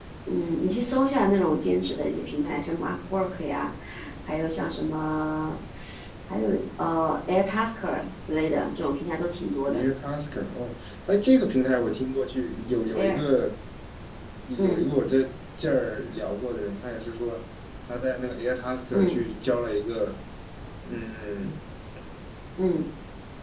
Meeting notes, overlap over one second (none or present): none